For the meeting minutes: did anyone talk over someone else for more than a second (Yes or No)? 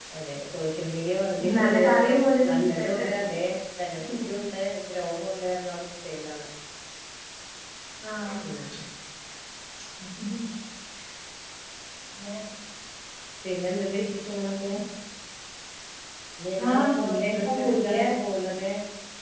Yes